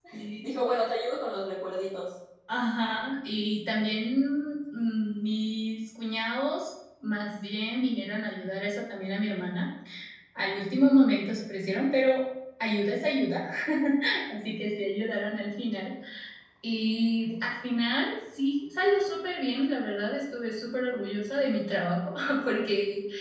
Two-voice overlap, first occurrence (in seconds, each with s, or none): none